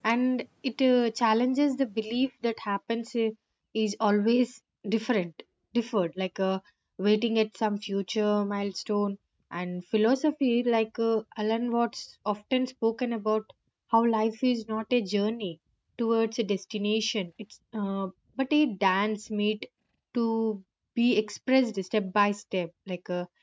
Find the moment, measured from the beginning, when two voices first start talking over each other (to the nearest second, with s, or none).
none